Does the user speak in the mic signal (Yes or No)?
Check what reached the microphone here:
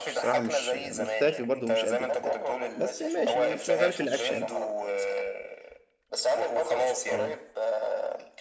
Yes